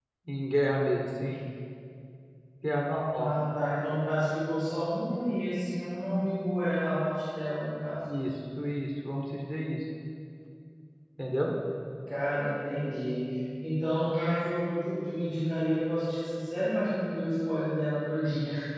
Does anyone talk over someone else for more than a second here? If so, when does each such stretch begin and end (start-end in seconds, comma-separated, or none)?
none